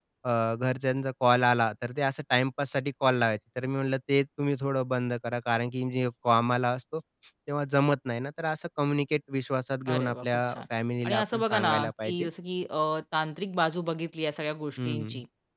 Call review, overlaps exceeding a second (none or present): present